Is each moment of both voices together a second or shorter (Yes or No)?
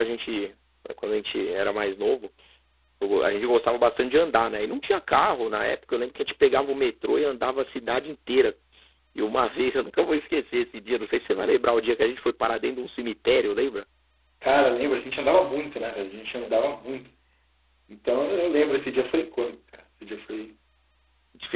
Yes